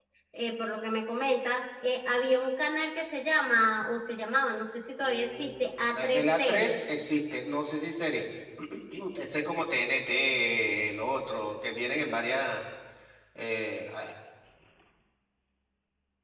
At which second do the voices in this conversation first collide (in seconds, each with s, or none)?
5.0 s